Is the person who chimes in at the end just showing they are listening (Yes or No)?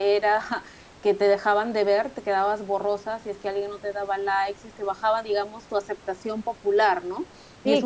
Yes